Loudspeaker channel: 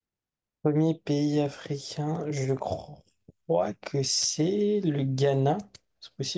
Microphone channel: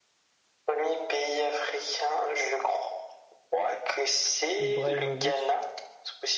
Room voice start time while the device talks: 4.7 s

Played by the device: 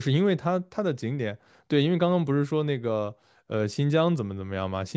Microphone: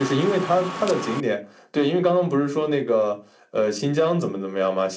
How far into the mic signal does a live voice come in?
none

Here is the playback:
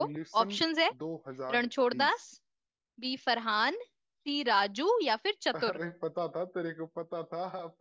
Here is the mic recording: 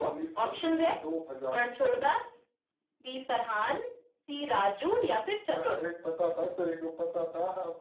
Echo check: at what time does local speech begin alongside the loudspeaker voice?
none

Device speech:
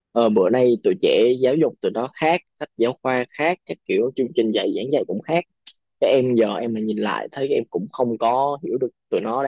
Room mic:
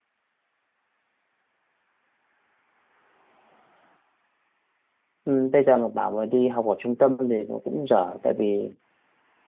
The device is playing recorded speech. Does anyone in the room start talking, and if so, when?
5.2 s

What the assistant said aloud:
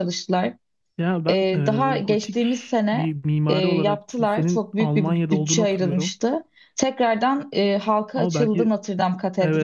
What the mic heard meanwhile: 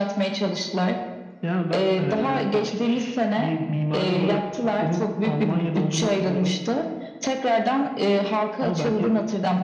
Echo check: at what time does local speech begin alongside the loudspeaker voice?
none

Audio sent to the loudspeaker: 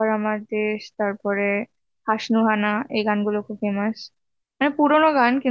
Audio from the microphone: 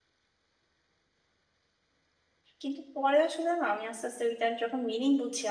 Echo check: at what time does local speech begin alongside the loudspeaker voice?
2.6 s

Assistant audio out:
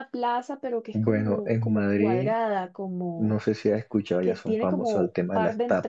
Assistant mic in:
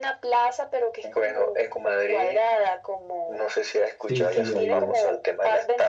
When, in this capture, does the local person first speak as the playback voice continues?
4.0 s

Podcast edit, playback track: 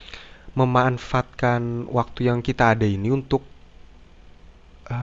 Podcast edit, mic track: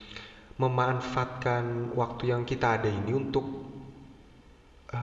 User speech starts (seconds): none

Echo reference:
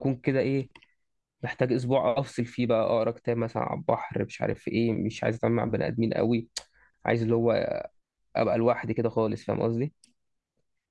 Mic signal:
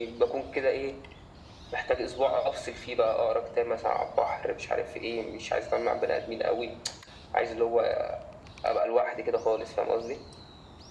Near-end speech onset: none

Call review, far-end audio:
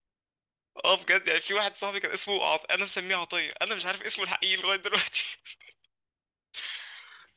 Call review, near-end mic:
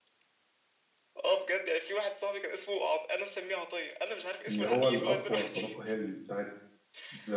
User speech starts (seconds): 4.5 s

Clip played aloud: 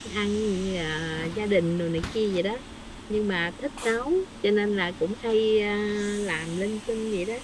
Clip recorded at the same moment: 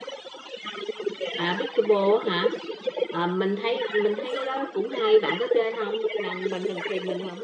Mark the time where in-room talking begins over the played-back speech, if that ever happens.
1.3 s

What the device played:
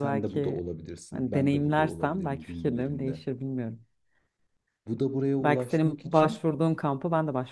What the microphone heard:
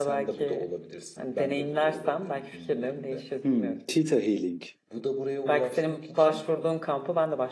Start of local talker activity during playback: 3.4 s

